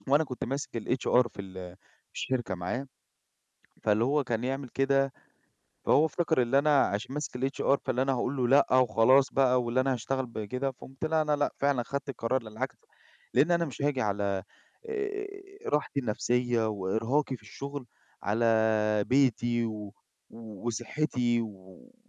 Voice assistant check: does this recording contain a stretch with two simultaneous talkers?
No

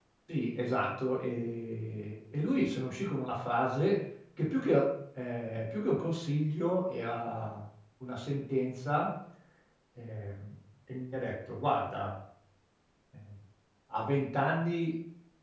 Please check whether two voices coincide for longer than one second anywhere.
No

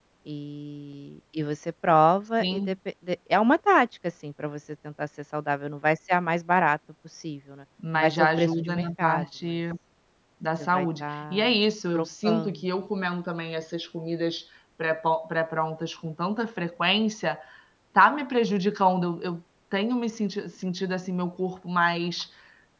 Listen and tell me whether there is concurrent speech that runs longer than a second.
Yes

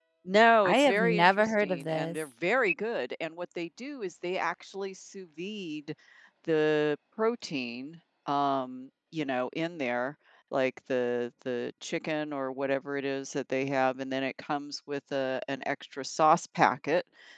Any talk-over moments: Yes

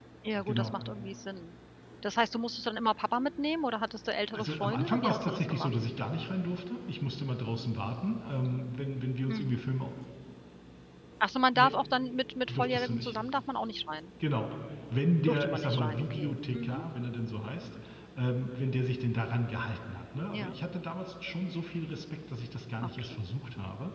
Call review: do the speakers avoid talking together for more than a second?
No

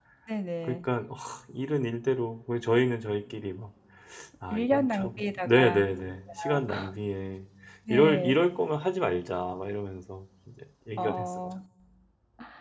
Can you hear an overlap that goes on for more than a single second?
Yes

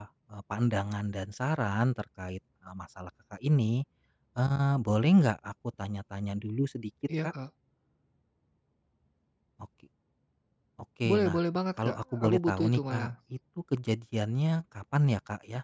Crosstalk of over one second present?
Yes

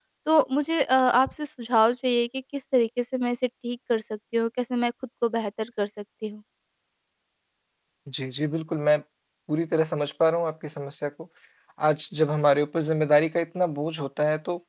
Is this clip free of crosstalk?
Yes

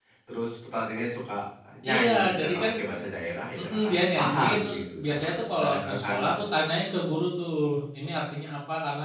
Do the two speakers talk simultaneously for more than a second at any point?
Yes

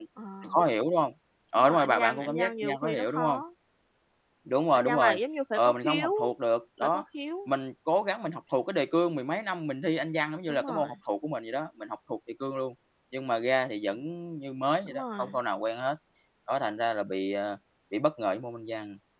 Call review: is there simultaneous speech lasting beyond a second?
Yes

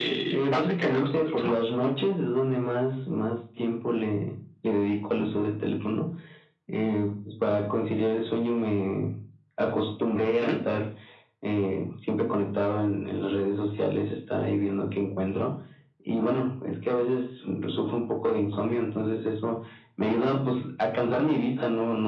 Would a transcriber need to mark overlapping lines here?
Yes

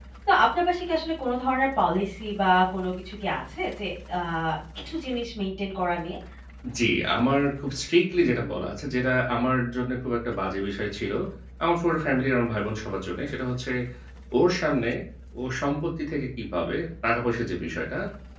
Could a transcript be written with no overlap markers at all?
Yes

